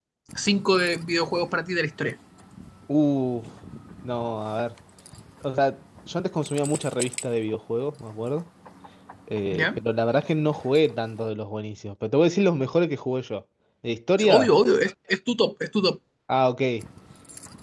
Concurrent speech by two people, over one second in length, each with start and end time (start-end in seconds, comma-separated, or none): none